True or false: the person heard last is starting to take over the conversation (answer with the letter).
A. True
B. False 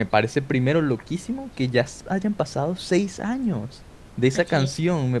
B